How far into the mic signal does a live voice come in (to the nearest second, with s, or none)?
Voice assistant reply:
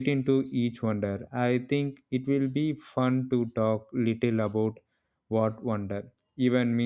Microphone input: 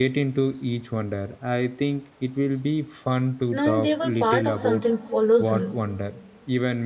4 s